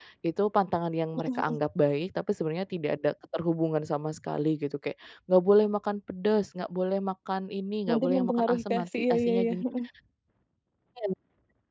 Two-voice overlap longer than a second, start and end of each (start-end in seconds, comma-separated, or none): 7.9-9.6